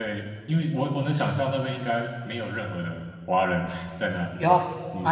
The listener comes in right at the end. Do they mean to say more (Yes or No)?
Yes